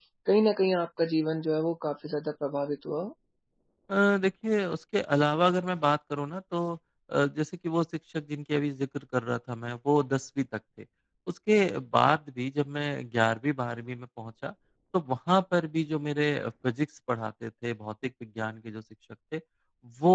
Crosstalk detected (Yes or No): No